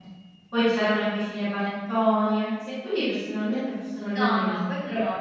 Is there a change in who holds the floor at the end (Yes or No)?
Yes